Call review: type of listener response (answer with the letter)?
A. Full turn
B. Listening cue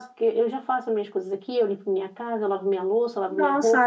A